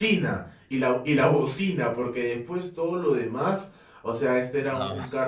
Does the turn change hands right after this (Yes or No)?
No